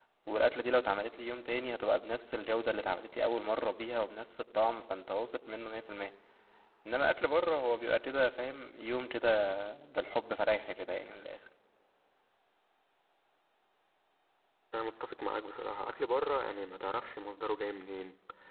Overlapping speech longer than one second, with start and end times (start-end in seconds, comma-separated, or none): none